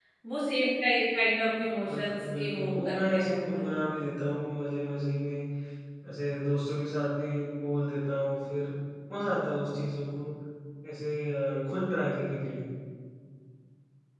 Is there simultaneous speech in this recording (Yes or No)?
Yes